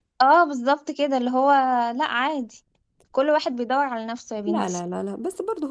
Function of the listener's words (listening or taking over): taking over